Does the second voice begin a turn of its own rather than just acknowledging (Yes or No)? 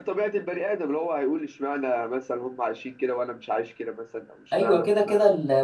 Yes